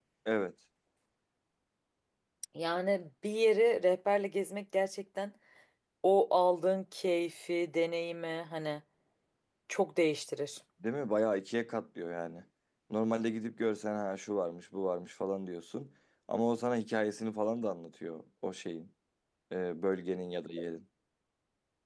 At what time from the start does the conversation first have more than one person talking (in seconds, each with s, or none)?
none